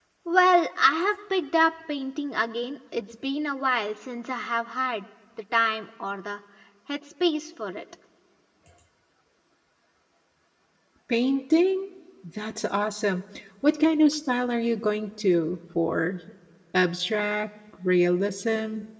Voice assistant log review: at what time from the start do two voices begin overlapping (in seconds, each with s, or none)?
none